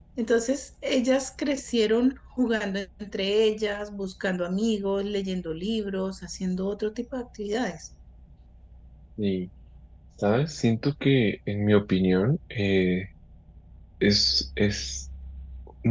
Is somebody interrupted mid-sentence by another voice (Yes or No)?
No